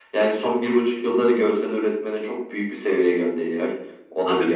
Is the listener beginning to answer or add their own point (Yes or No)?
Yes